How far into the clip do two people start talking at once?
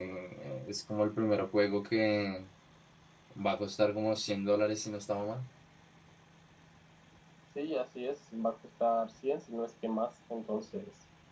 none

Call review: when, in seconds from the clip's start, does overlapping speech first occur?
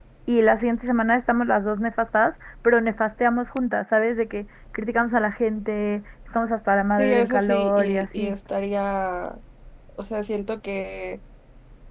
7.0 s

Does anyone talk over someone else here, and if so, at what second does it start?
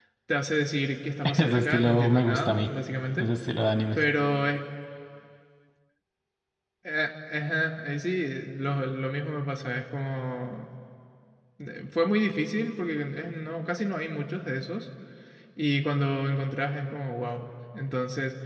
1.2 s

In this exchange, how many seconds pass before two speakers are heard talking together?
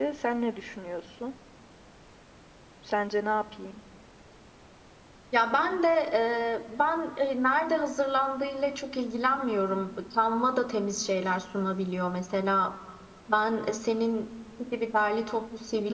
none

